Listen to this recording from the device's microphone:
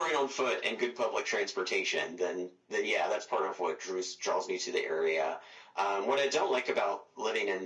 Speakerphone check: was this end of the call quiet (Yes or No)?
Yes